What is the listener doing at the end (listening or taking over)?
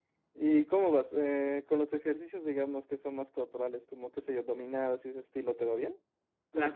taking over